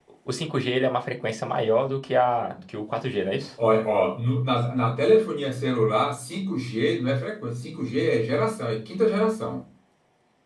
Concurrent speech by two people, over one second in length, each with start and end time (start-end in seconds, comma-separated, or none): none